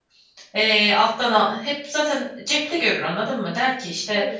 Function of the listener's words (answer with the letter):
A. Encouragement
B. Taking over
A